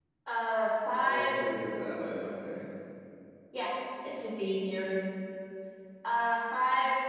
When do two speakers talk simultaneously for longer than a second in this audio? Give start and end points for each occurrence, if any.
none

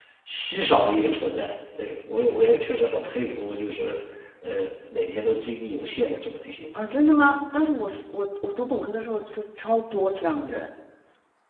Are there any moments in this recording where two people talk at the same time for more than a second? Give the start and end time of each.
none

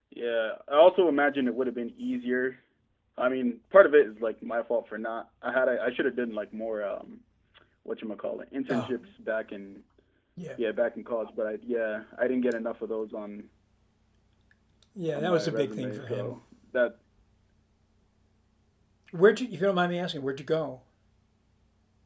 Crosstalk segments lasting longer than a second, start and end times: 15.2-16.4

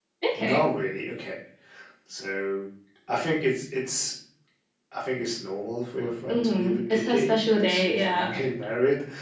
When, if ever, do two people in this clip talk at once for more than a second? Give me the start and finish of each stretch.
6.3-8.3

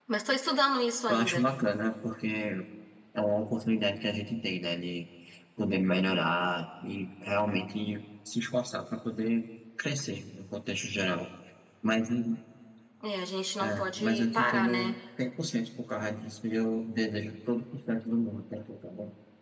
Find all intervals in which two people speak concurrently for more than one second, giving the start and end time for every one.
13.6-14.9

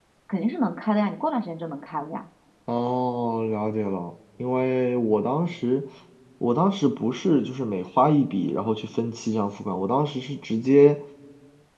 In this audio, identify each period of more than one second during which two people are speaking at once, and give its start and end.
none

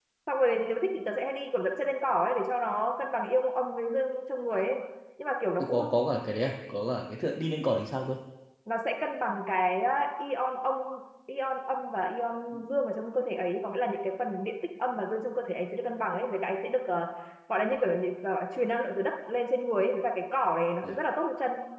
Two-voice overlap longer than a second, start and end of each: none

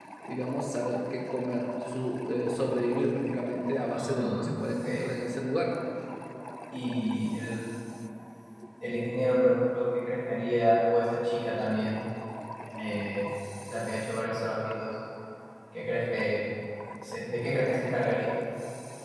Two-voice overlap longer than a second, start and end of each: none

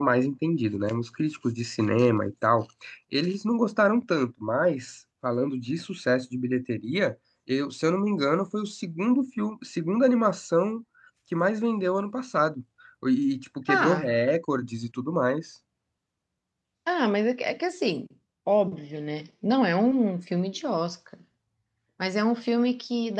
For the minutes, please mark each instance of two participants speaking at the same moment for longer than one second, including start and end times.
none

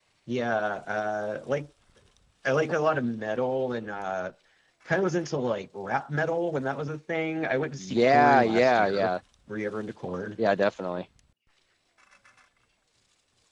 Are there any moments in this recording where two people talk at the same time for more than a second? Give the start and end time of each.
7.8-9.1

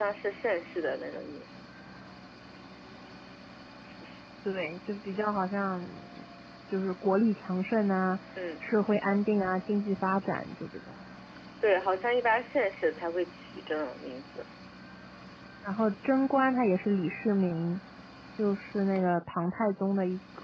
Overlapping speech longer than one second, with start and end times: none

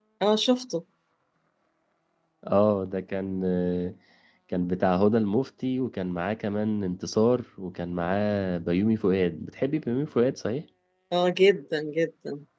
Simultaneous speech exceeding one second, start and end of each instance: none

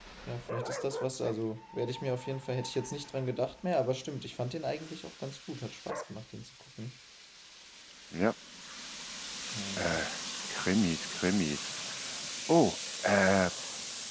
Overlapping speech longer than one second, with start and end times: none

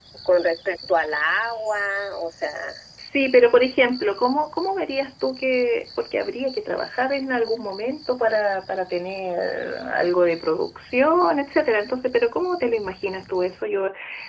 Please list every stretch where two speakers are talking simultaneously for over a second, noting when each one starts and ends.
none

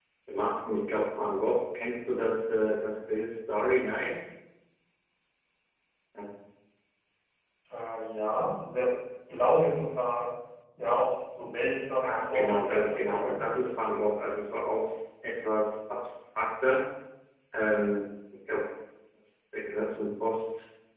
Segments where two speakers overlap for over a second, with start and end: 12.0-13.3

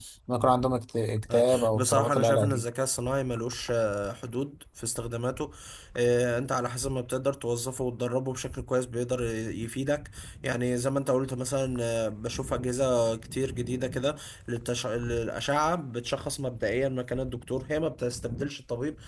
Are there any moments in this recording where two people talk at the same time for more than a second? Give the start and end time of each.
1.3-2.6

